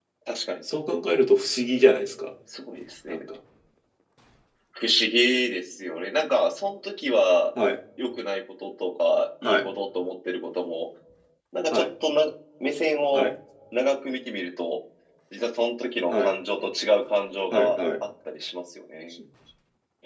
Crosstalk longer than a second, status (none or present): none